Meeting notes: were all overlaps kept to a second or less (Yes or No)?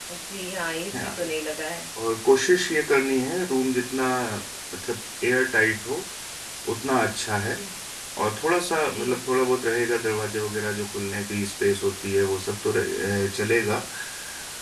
Yes